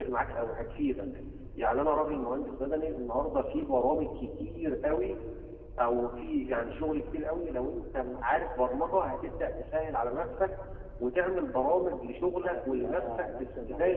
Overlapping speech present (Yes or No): Yes